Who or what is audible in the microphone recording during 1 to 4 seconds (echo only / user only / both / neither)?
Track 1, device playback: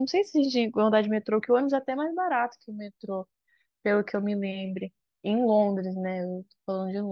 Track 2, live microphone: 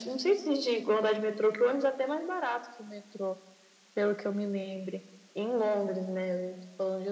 echo only